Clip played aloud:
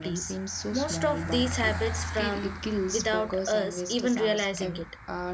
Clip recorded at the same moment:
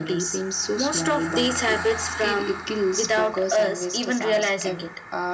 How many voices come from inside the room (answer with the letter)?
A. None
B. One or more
A